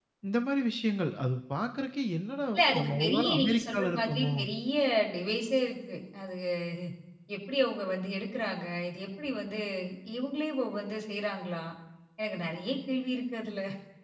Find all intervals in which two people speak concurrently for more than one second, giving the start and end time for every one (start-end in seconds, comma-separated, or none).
2.6-4.3